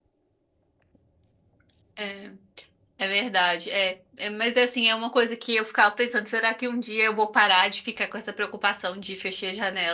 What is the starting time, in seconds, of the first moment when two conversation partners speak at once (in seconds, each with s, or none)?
none